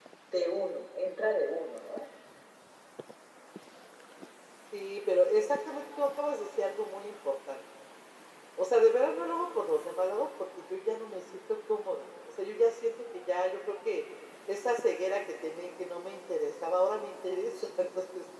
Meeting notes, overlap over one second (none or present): none